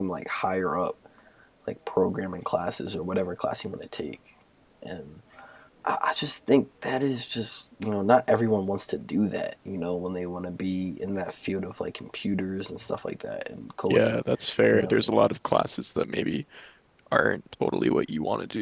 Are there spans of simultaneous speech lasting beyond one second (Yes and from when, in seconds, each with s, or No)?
No